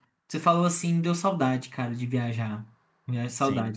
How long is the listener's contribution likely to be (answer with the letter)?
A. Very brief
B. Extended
B